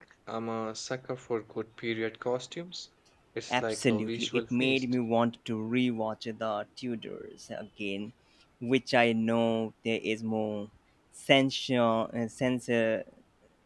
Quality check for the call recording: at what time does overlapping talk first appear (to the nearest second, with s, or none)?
4 s